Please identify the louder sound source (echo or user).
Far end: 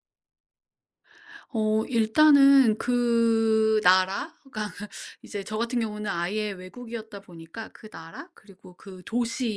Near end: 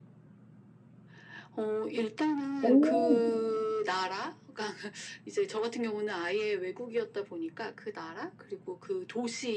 user